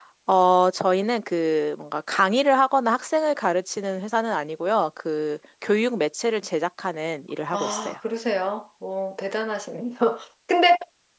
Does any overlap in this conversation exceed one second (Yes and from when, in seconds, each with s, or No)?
No